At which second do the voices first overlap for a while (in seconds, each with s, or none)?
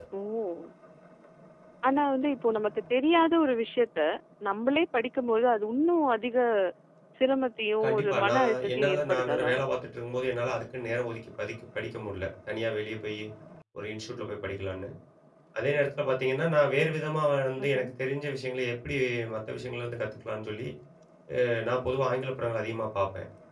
7.8 s